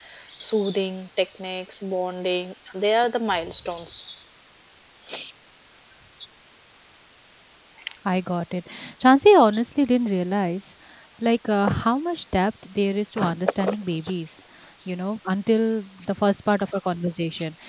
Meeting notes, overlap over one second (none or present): none